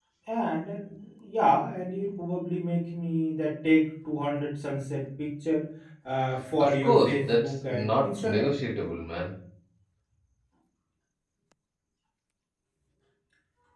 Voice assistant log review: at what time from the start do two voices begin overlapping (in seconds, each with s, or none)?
6.6 s